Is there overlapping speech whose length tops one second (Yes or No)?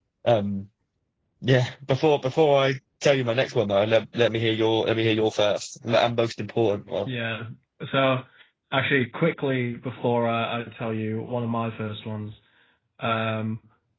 No